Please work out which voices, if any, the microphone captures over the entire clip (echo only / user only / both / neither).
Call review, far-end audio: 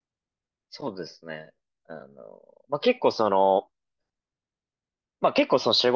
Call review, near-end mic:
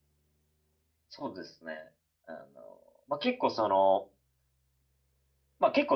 echo only